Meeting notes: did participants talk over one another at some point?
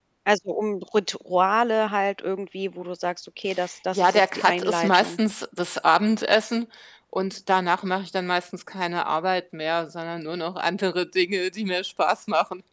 Yes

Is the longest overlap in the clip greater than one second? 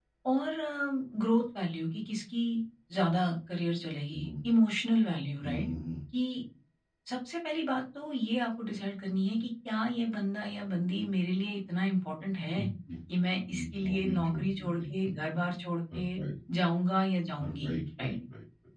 Yes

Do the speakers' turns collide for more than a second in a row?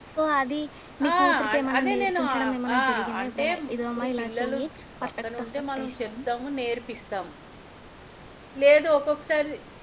Yes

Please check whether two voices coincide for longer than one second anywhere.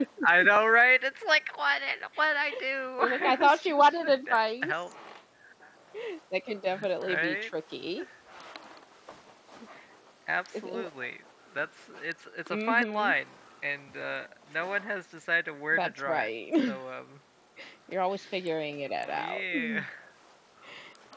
Yes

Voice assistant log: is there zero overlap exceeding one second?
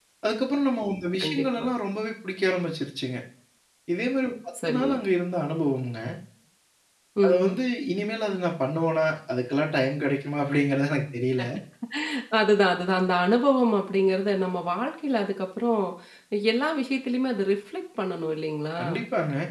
Yes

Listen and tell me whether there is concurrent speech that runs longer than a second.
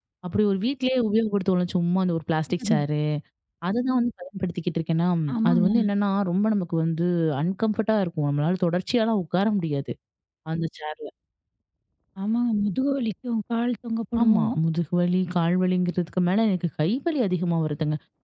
No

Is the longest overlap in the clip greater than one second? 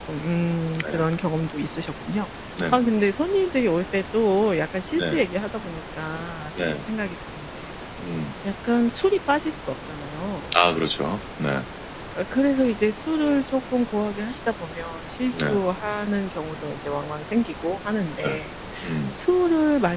No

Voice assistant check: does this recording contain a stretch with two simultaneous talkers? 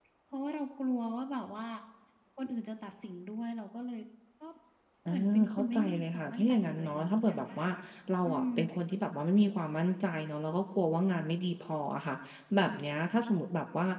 Yes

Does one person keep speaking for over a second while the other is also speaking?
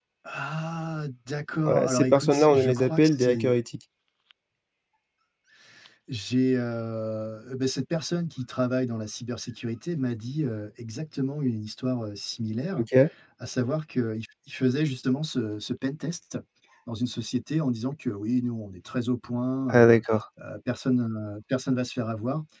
Yes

